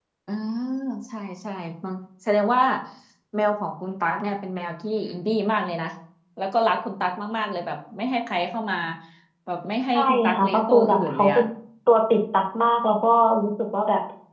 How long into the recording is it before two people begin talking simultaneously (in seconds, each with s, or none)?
9.9 s